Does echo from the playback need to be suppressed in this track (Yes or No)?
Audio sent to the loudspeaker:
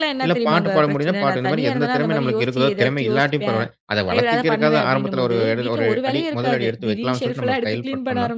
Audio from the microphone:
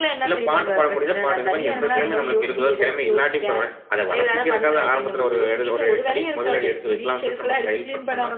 Yes